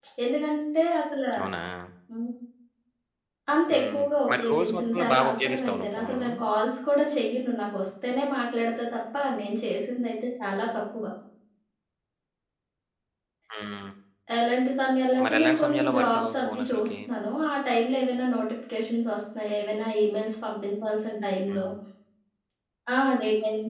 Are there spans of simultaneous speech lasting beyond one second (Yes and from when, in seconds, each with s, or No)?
Yes, from 3.7 s